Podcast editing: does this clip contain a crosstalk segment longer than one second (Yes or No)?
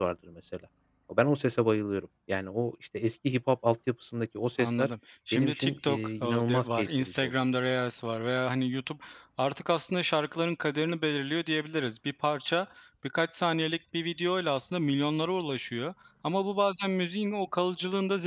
Yes